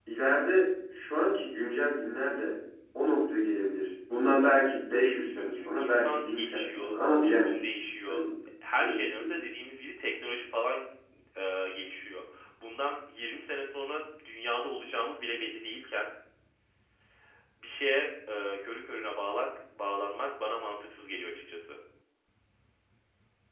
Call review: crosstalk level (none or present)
present